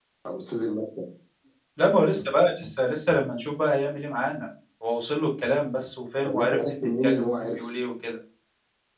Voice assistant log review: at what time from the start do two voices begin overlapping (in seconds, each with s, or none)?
6.2 s